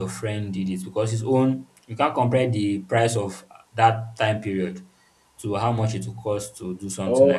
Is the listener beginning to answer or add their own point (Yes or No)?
Yes